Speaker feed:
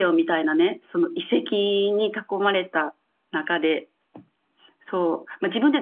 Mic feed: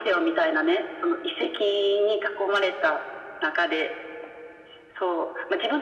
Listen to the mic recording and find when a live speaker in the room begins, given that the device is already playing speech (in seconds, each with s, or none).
none